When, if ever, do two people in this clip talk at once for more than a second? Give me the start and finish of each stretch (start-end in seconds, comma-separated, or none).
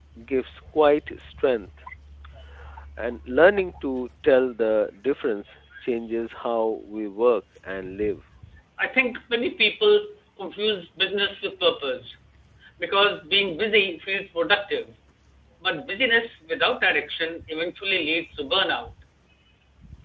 none